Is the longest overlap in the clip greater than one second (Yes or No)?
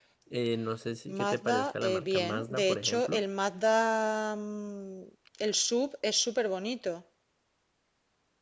Yes